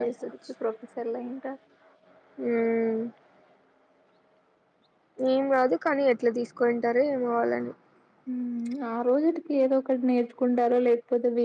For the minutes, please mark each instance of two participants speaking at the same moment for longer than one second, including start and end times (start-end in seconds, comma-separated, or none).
none